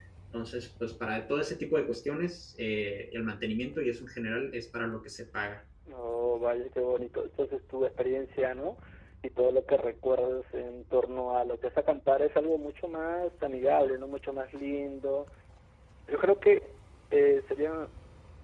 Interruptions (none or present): none